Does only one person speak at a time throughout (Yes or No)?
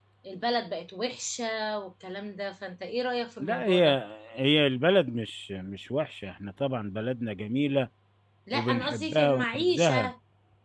No